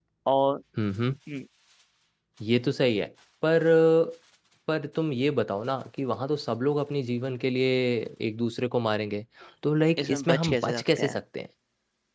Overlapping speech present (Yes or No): Yes